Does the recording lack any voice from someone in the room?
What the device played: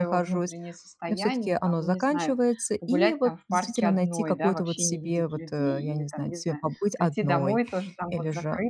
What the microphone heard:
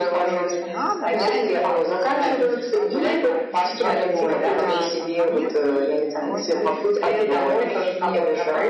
No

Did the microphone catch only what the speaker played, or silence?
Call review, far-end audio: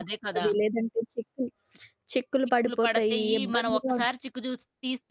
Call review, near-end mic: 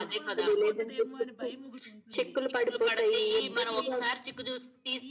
No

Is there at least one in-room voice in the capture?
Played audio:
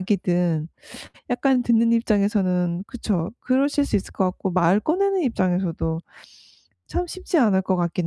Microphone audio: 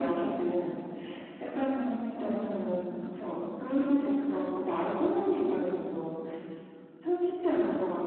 No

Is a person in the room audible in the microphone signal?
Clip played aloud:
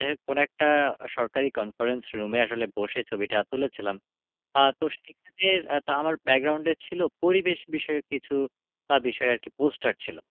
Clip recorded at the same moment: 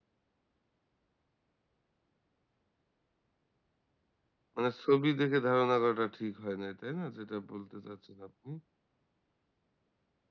Yes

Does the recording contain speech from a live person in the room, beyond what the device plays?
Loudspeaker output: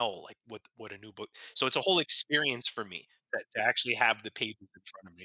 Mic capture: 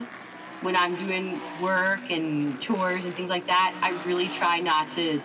Yes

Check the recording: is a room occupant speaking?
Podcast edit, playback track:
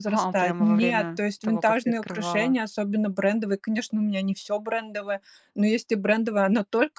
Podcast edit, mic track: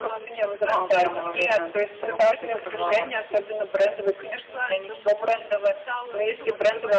Yes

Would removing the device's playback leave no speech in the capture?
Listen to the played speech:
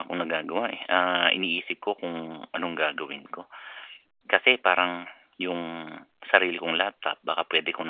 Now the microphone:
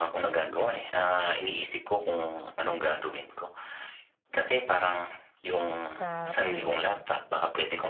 No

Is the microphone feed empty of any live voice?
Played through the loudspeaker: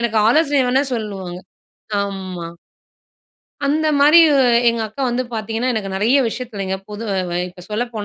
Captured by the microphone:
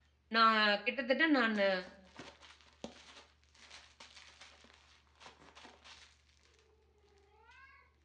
No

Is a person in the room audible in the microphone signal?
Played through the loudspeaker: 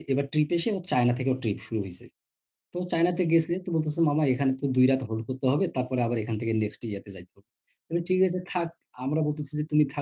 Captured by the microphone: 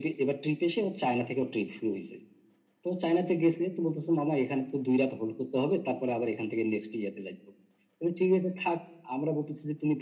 No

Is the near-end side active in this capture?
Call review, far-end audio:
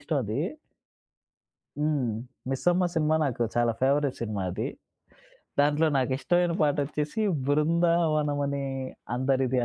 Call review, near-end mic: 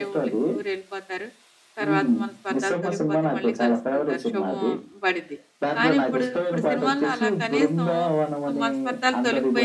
Yes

